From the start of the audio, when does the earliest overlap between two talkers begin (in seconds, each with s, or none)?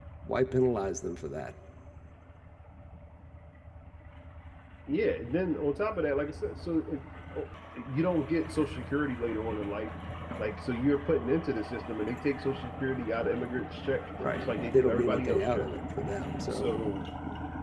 14.2 s